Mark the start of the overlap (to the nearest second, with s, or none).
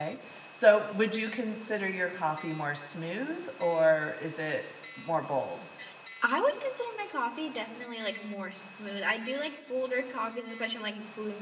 none